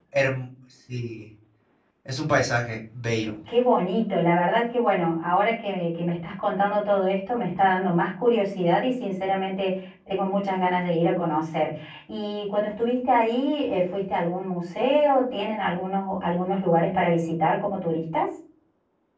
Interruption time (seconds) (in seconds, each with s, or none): none